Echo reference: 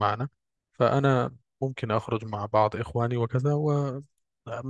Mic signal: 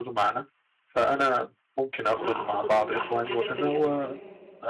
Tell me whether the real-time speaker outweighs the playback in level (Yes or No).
No